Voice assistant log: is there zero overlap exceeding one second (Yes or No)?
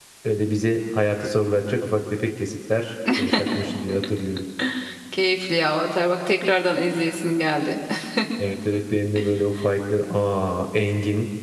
Yes